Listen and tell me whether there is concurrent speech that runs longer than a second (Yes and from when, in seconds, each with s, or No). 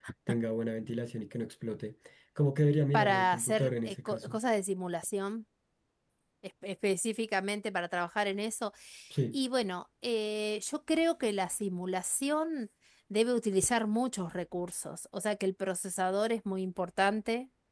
Yes, from 2.9 s